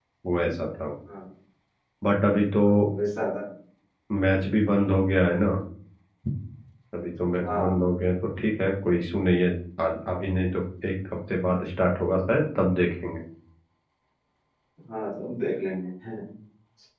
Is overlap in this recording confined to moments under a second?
Yes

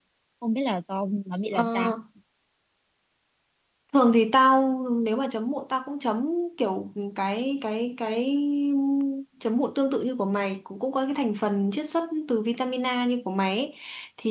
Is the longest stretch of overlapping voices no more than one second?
Yes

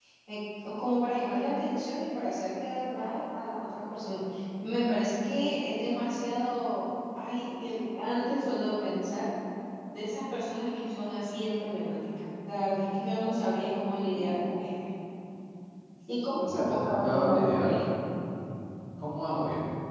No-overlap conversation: No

